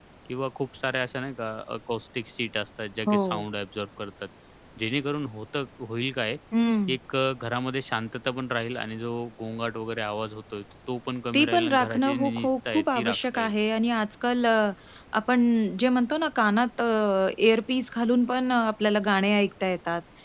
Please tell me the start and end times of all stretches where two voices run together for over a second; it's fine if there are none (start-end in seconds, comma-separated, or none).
11.3-13.5